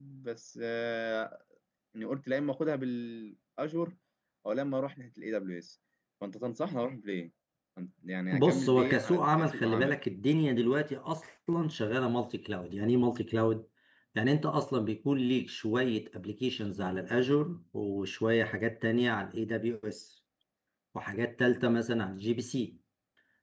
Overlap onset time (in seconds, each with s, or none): 8.3 s